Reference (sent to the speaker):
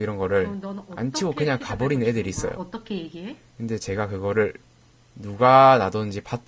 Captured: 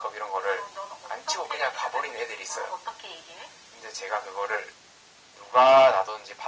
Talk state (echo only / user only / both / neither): echo only